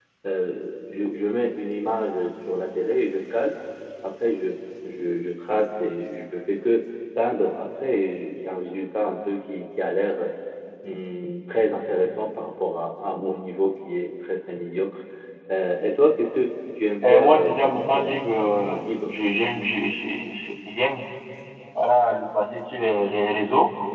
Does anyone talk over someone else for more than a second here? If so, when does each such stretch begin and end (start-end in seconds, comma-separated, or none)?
17.1-19.1